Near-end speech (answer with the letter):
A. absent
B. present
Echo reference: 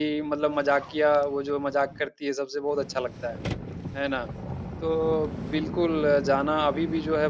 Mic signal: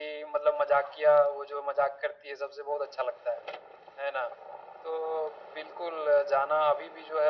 A